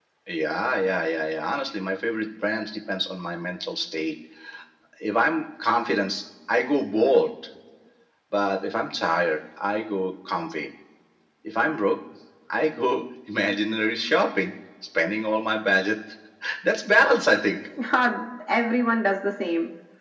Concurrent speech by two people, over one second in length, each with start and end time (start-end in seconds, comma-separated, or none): none